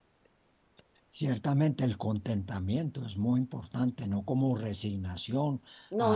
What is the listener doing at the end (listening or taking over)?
listening